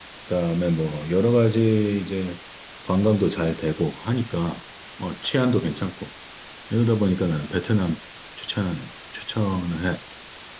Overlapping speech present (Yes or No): No